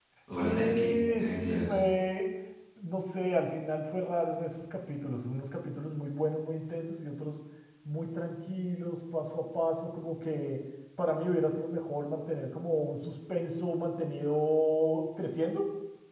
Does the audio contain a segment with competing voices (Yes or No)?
Yes